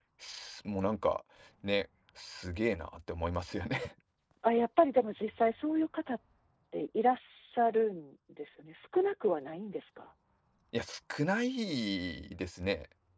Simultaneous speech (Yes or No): No